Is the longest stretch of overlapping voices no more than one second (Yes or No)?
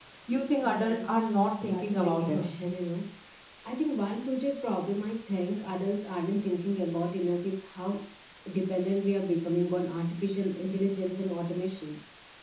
No